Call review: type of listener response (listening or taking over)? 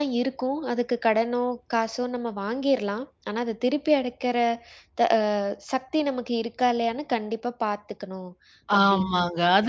taking over